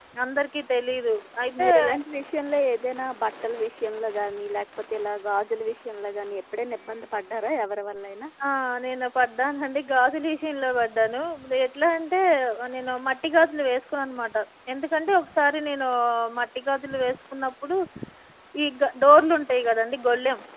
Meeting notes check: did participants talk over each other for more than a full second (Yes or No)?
No